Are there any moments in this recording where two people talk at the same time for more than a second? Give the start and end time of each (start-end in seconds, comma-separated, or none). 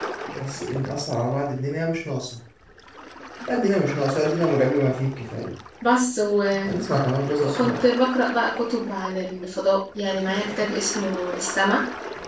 none